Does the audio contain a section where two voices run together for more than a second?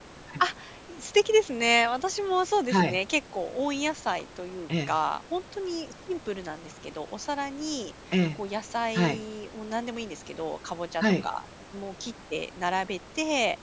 No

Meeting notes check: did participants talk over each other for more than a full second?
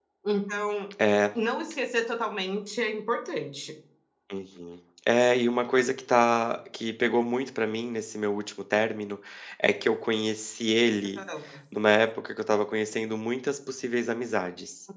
No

